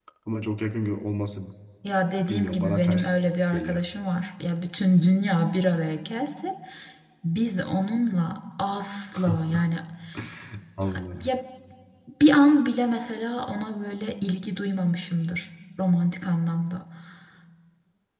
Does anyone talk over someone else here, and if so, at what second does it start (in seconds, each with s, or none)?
2.3 s